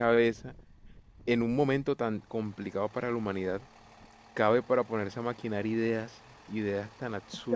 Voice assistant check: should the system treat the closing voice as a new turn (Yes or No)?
Yes